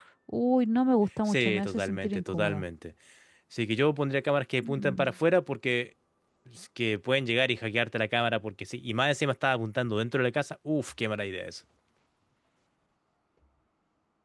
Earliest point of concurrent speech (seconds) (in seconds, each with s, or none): 1.3 s